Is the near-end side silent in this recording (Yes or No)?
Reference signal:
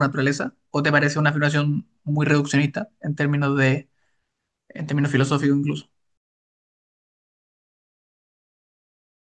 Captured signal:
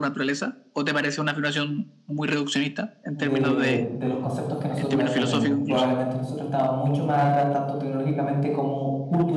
No